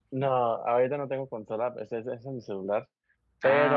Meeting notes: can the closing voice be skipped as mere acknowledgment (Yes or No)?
Yes